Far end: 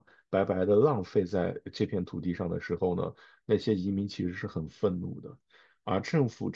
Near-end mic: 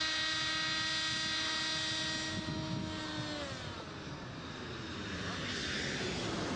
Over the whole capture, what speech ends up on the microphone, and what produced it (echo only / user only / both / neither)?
neither